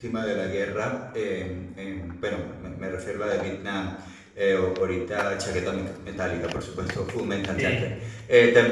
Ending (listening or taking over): listening